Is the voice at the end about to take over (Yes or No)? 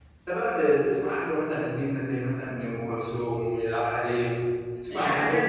Yes